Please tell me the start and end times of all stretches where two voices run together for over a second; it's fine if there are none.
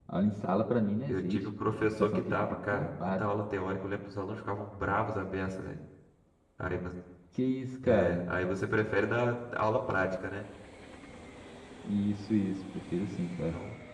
1.1-3.3

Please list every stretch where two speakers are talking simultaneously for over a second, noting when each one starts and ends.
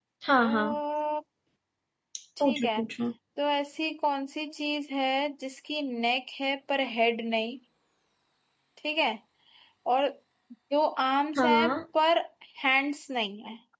none

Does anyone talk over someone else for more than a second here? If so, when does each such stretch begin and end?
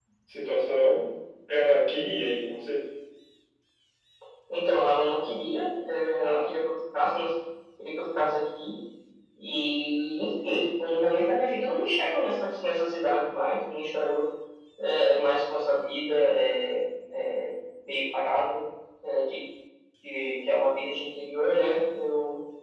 none

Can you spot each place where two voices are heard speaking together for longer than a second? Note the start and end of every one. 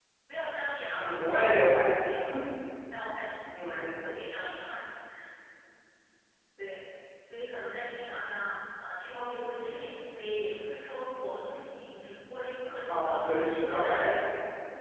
12.9-14.2

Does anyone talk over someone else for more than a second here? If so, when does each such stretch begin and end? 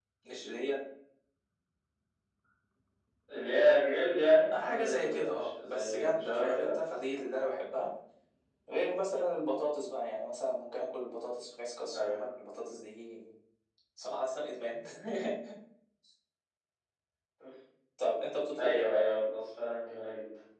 4.5-6.7

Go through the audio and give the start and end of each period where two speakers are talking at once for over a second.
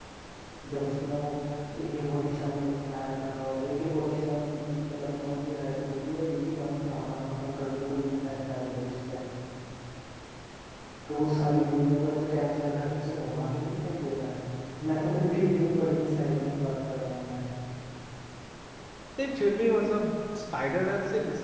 none

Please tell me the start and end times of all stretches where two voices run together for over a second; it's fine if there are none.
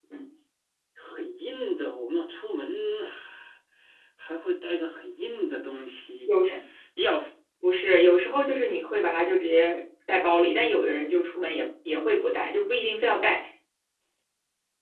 none

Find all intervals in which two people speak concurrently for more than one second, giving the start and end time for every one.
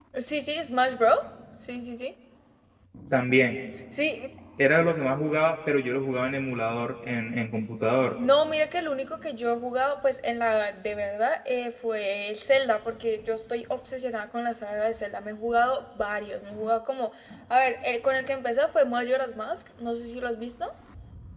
none

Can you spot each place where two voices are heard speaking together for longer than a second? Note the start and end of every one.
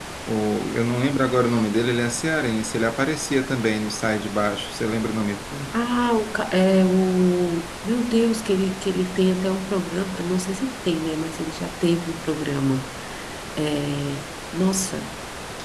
none

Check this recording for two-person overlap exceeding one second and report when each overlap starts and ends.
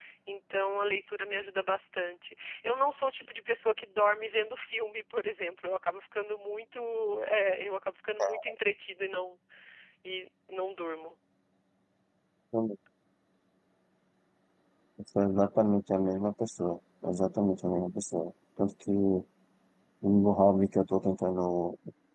none

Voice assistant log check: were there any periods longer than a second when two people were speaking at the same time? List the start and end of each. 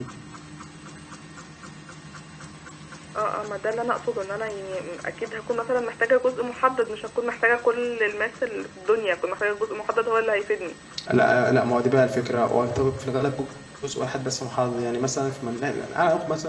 none

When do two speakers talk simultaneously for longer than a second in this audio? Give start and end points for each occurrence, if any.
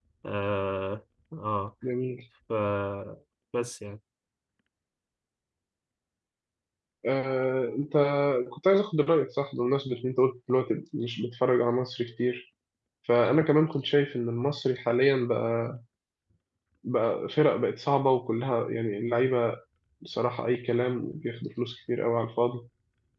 none

